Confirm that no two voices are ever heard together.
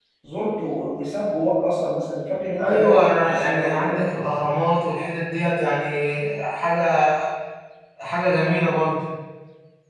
No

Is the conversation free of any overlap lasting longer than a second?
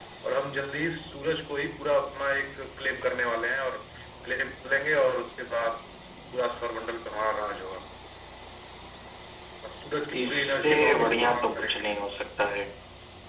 No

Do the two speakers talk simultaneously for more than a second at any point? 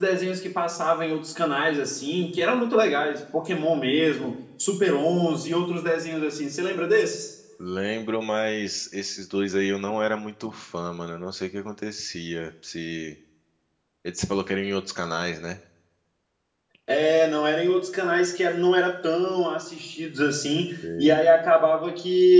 No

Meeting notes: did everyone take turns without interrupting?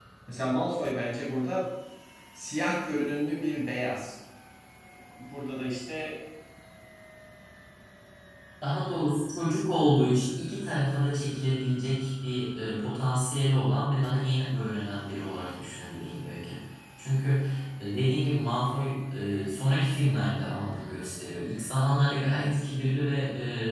Yes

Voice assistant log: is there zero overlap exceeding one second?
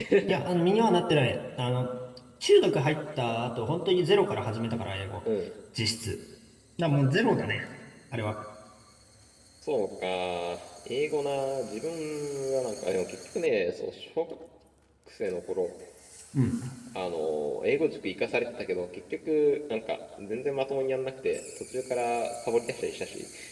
Yes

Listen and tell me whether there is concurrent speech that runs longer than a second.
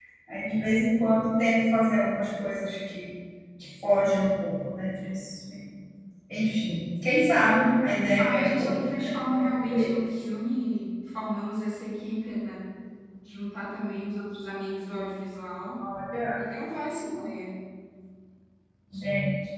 Yes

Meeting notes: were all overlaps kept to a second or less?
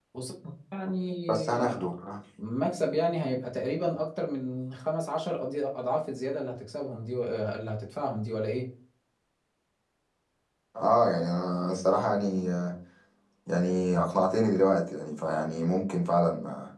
Yes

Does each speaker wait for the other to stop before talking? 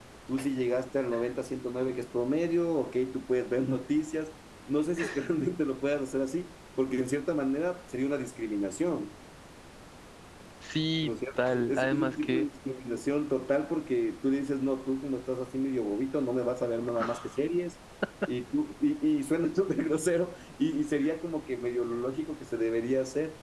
No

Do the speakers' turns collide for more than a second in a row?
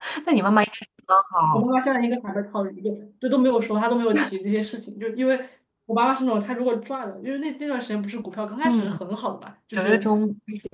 No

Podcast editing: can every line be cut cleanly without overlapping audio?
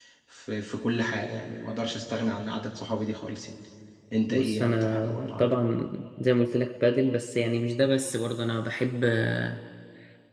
No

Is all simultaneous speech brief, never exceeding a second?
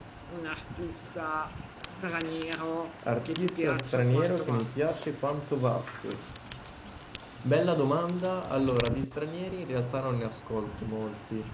No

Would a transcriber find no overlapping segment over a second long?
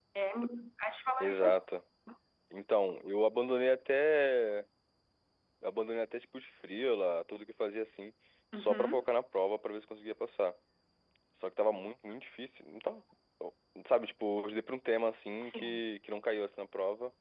Yes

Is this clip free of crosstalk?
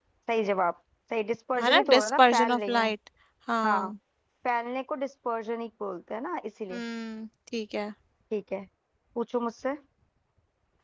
No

